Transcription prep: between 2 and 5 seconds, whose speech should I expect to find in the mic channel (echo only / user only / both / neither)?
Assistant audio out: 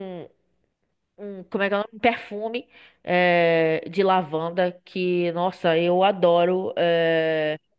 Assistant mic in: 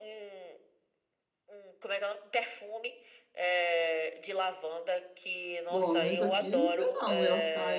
echo only